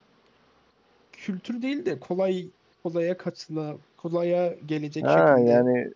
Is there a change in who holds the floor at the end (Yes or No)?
Yes